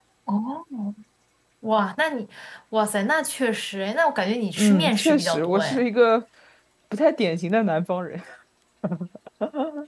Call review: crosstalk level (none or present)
present